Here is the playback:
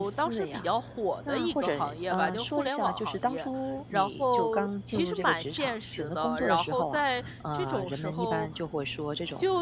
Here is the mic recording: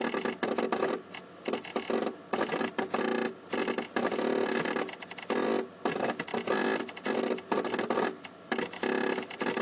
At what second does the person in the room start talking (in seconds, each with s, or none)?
none